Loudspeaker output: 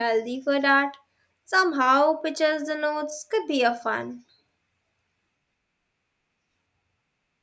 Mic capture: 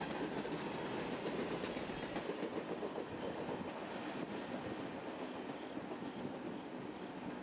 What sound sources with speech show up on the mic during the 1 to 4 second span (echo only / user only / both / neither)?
neither